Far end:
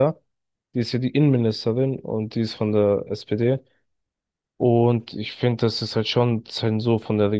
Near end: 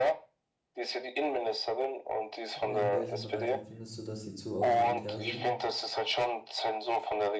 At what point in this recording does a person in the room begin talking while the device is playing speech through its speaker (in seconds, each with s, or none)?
2.6 s